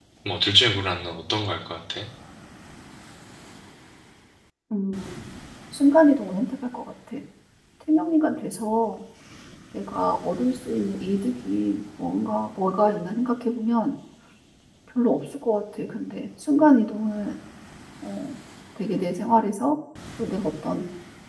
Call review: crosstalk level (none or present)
none